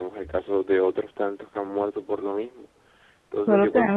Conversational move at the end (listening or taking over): taking over